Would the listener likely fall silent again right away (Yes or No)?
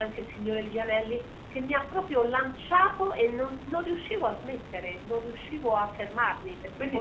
No